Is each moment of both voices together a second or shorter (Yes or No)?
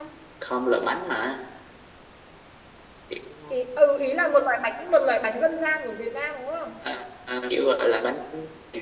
Yes